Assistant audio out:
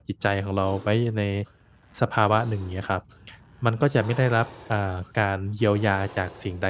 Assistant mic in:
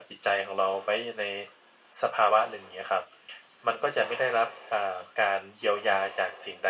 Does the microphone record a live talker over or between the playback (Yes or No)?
No